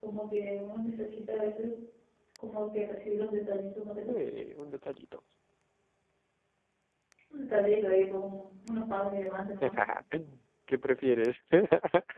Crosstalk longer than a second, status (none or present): none